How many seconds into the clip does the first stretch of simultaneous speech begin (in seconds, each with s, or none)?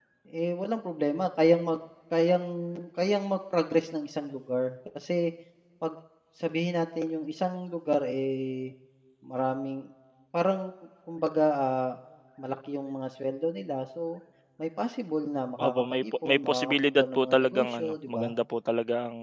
15.6 s